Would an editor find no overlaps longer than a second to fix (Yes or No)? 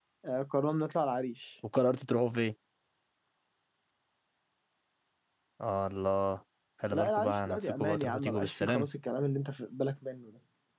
No